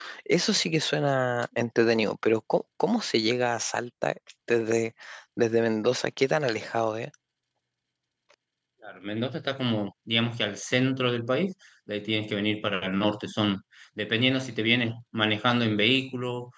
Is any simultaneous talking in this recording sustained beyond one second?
No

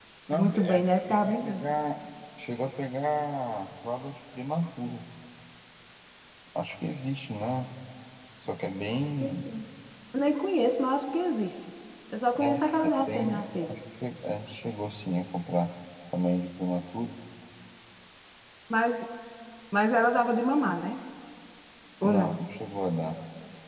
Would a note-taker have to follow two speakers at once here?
Yes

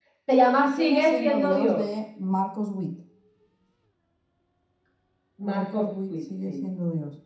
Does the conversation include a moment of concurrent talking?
Yes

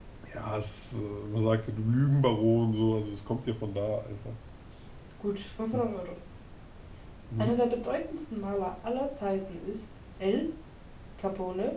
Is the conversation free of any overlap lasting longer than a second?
Yes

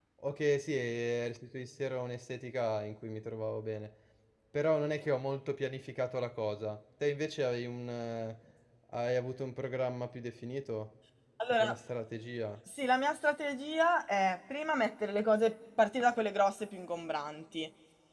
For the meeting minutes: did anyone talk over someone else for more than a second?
No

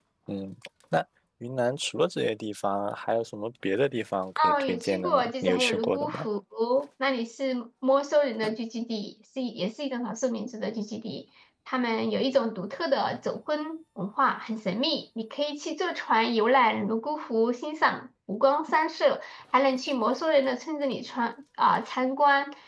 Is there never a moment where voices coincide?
No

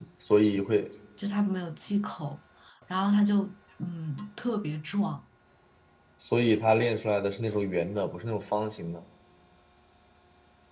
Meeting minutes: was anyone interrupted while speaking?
No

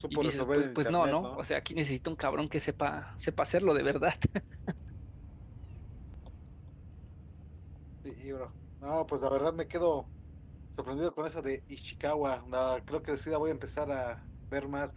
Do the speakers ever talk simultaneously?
Yes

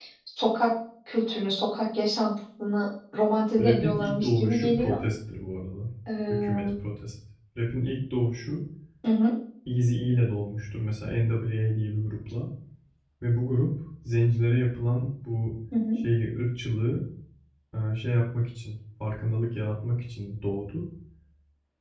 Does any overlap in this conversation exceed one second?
Yes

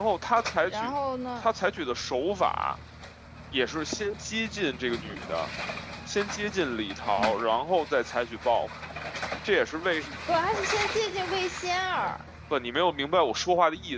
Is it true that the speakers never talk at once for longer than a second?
Yes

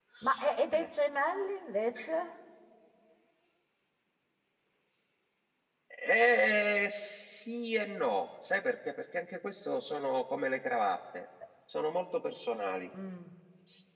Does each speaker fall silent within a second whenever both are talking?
Yes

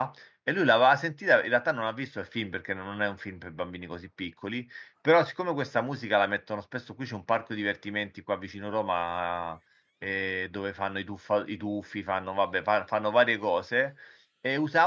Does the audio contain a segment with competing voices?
No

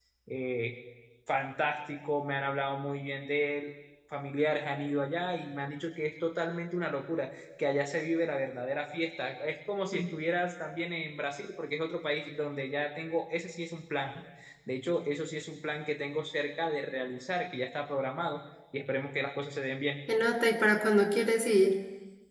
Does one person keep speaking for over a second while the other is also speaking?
No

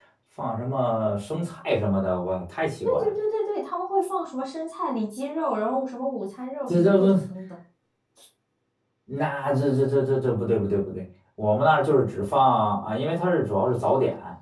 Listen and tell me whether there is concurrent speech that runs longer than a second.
No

